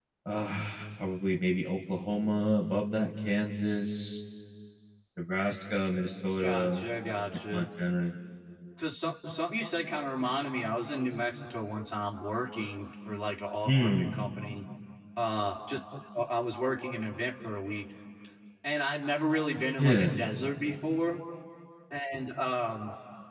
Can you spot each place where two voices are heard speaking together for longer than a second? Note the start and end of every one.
none

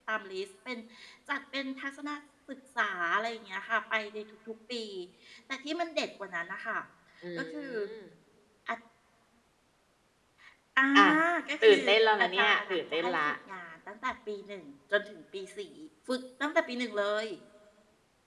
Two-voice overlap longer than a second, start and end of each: 11.6-13.3

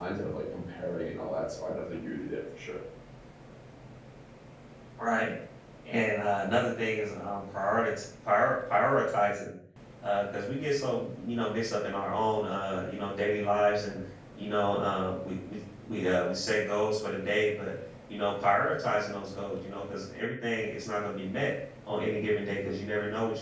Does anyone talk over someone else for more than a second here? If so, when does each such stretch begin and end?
none

